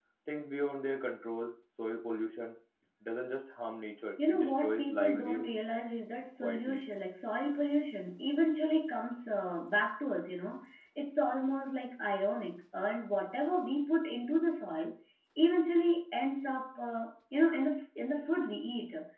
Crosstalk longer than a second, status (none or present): present